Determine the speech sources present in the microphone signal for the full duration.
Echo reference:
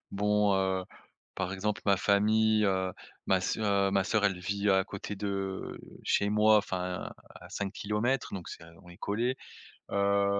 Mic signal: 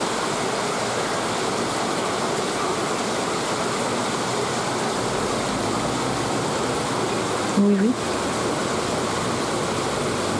user only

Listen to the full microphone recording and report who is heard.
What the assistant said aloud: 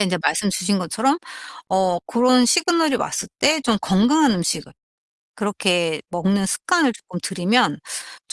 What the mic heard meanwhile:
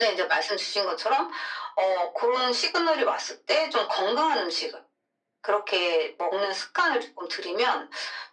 echo only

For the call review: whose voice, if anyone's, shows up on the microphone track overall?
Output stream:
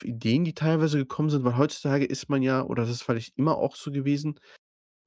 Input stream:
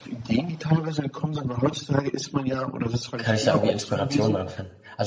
both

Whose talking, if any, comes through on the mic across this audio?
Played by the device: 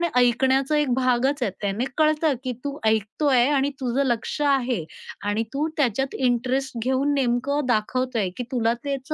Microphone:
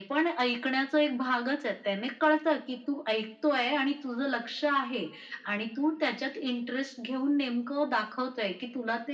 echo only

